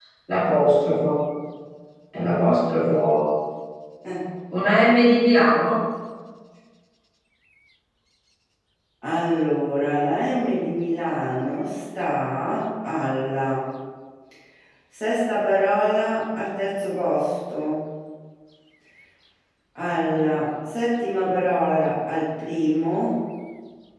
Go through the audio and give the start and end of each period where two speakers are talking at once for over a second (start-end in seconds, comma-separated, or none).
none